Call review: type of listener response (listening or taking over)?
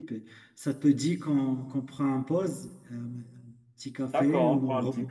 taking over